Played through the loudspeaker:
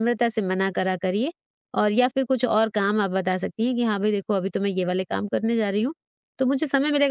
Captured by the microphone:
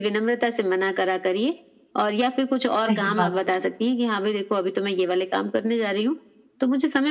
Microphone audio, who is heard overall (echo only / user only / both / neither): both